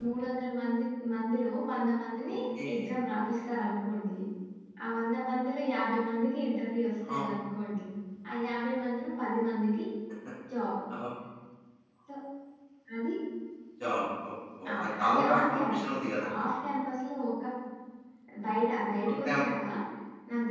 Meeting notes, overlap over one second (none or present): present